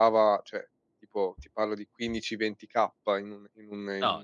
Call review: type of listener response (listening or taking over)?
listening